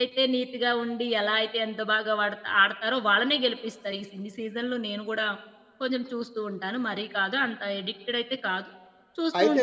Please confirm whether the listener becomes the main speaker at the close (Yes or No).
No